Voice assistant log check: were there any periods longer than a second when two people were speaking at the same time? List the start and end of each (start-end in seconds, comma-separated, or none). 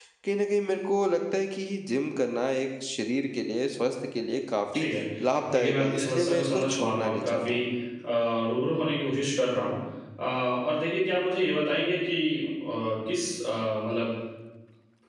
5.5-7.6